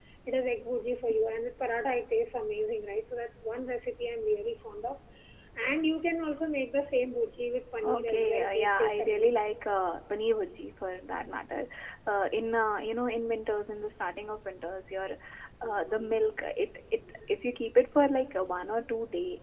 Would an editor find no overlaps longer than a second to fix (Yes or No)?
No